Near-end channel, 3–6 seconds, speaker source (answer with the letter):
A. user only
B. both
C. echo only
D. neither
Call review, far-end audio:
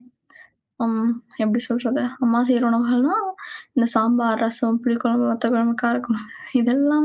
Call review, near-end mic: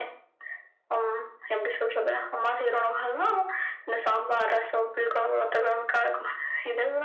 C